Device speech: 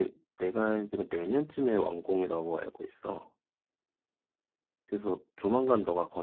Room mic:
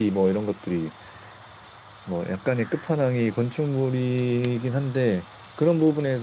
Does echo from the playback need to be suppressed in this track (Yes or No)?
No